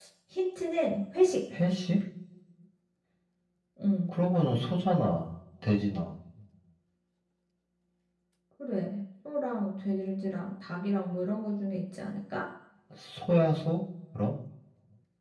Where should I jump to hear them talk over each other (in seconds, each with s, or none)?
none